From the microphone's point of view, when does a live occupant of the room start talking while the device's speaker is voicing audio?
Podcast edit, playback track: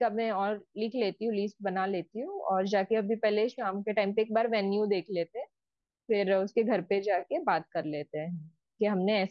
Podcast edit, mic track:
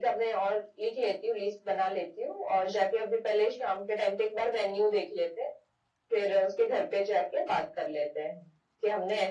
none

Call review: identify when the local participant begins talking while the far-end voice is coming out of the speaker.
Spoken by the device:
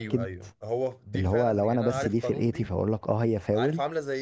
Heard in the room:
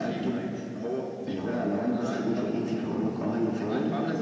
none

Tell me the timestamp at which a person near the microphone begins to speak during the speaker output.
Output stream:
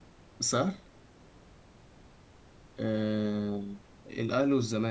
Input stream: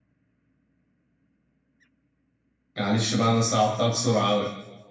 2.8 s

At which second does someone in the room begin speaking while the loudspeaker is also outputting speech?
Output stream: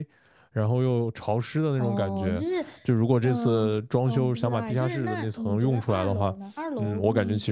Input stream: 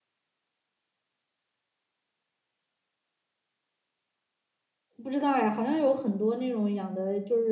5.0 s

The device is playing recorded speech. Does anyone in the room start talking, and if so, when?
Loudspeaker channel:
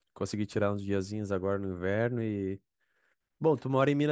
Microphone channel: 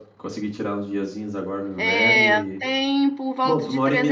1.7 s

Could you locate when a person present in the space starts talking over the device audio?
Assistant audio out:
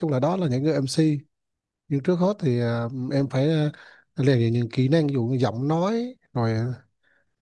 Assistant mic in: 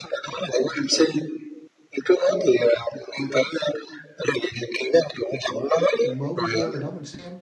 6.0 s

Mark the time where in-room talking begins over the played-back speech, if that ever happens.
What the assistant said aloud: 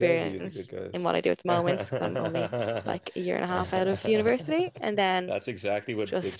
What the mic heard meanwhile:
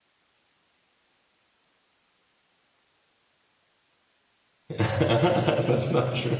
4.7 s

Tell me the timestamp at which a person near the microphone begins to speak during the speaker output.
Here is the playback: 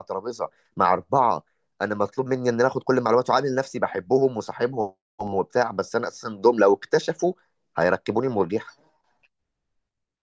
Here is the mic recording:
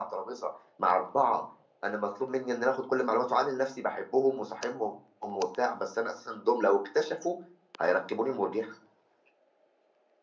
none

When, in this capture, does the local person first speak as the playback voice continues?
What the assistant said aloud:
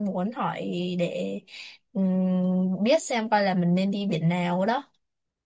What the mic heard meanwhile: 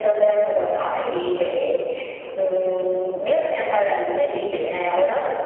none

